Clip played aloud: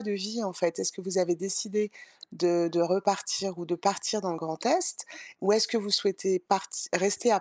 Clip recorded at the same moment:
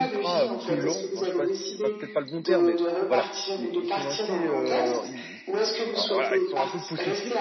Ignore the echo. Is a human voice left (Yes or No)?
Yes